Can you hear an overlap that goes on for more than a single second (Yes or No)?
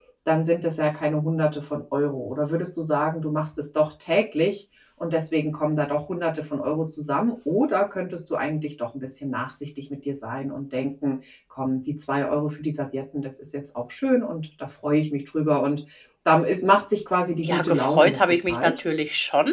Yes